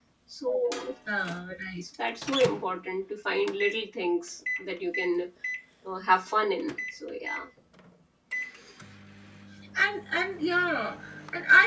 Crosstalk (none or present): none